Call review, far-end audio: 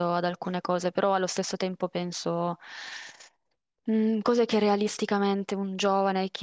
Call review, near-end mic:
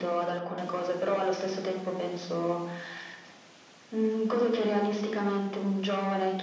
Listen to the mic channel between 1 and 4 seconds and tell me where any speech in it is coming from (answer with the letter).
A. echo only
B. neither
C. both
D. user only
A